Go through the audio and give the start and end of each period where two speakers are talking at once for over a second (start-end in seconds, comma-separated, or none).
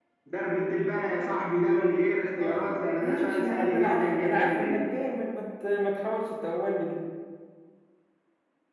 2.4-4.8